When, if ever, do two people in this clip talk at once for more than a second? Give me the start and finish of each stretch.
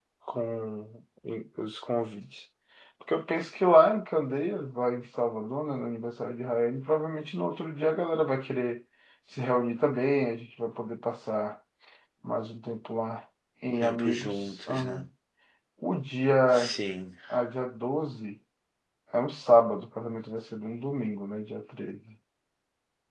13.8-15.1

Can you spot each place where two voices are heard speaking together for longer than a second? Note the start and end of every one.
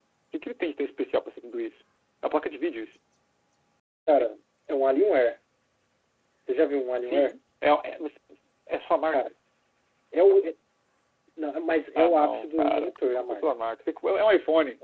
12.0-13.4

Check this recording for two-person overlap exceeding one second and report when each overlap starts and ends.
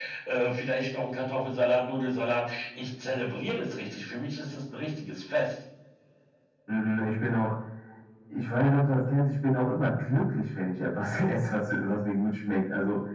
none

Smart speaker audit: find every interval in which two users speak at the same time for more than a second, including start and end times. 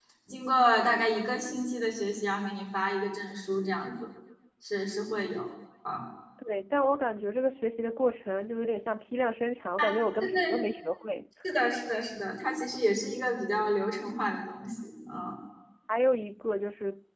none

